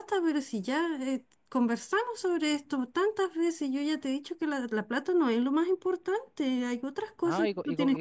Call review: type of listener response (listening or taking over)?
taking over